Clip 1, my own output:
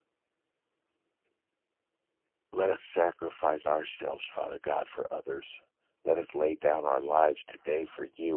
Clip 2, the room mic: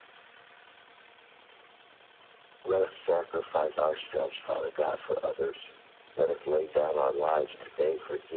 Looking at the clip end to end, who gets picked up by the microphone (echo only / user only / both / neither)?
echo only